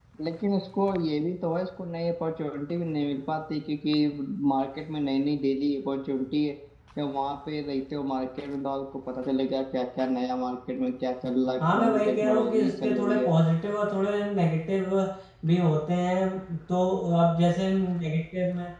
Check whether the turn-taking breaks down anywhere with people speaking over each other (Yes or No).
Yes